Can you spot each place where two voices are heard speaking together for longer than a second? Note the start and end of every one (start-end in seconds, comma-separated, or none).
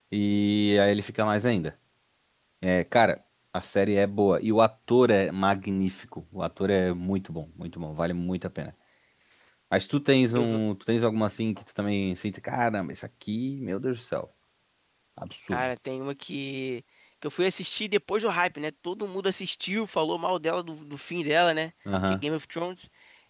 none